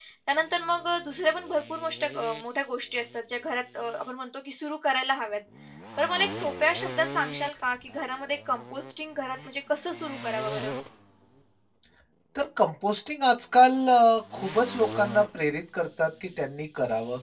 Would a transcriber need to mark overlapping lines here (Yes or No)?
No